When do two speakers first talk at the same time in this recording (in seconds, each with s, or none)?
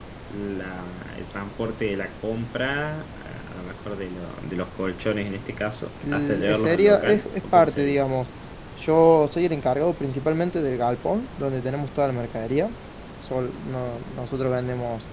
6.0 s